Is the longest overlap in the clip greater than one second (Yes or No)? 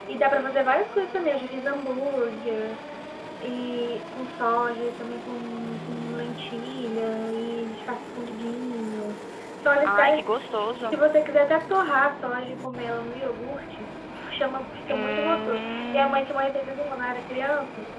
Yes